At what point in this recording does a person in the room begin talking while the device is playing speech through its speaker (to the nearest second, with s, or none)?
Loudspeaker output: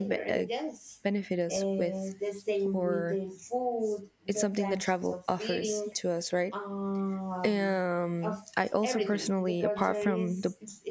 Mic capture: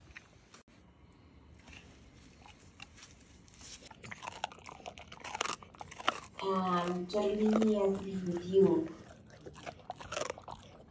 6 s